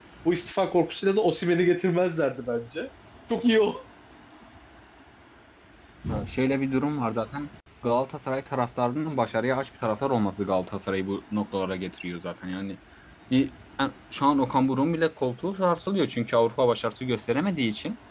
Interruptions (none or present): none